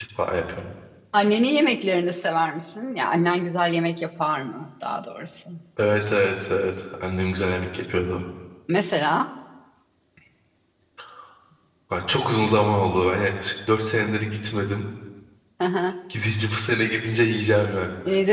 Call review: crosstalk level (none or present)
none